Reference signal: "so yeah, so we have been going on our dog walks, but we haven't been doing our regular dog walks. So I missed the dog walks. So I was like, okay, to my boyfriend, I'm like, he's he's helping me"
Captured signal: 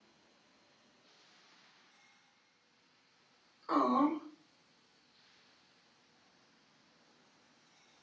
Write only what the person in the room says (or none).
Oh,